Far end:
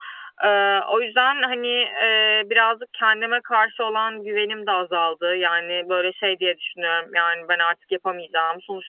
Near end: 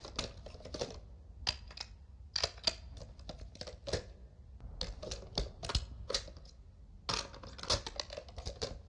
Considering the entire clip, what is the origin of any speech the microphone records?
neither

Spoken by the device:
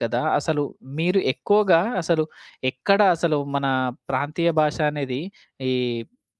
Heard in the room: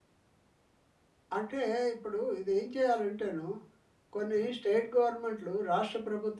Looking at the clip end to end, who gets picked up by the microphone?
user only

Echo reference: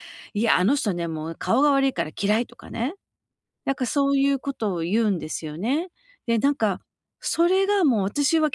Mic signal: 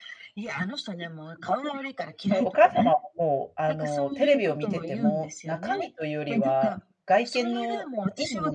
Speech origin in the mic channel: both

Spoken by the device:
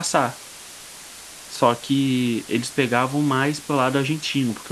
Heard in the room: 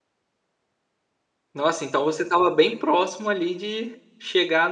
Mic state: user only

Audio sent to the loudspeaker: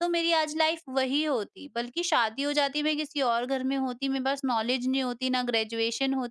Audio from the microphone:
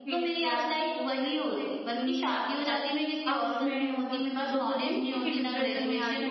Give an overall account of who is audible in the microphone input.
both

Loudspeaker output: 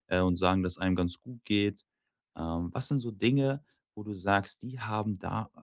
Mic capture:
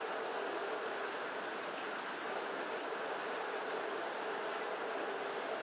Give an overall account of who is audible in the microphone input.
neither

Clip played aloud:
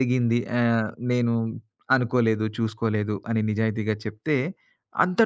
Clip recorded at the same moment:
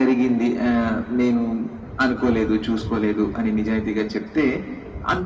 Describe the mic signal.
echo only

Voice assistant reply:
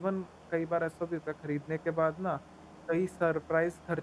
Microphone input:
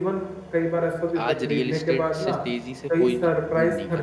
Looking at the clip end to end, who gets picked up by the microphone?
both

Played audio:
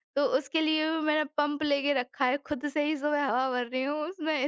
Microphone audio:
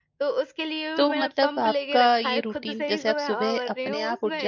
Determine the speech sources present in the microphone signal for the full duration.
both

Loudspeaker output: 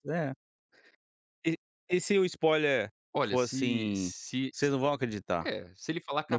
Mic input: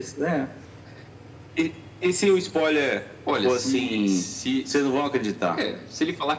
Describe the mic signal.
echo only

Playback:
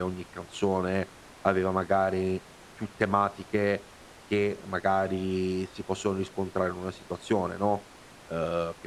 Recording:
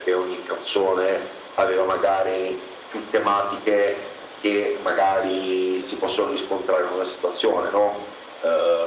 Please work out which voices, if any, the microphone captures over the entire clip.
echo only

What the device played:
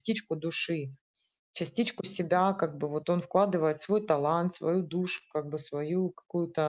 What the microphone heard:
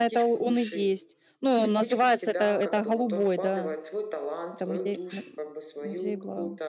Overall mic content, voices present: both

